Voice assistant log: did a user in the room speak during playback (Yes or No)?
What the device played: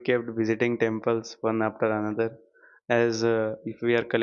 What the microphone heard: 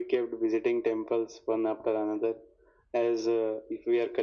No